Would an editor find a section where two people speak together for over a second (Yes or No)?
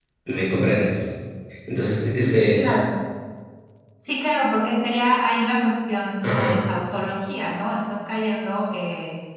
No